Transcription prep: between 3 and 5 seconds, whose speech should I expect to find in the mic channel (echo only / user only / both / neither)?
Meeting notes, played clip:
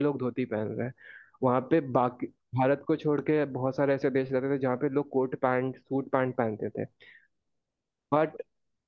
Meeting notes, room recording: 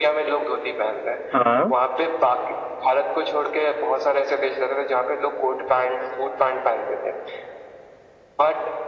echo only